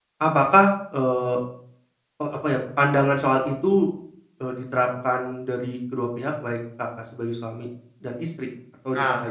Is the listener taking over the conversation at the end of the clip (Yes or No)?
Yes